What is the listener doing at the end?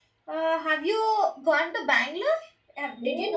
taking over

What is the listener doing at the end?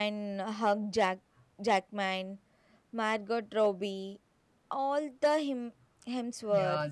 taking over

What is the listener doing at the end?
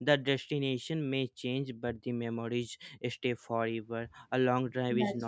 listening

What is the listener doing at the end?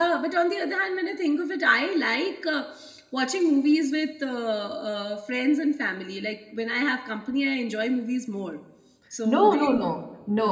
taking over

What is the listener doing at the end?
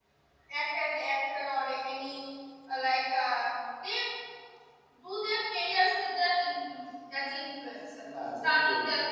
taking over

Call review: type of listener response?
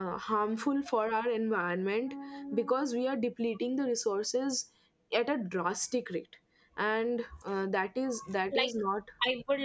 taking over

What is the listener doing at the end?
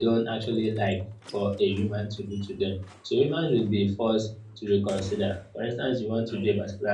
listening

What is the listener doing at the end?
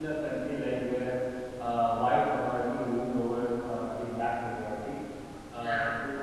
listening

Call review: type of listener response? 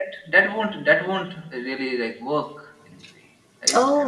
taking over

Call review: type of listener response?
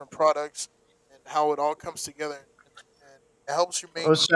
listening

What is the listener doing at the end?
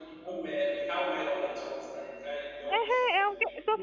taking over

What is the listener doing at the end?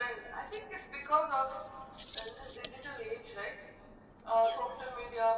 listening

